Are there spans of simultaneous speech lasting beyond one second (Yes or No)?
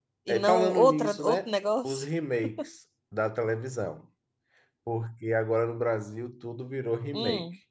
Yes